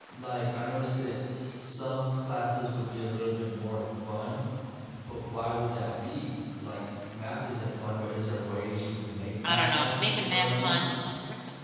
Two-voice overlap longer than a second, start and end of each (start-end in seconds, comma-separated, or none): 9.4-10.8